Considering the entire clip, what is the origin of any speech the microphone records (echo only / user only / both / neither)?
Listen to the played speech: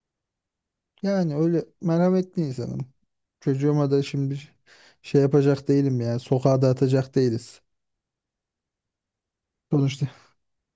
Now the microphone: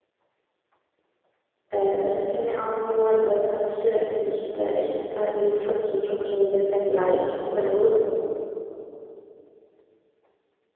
user only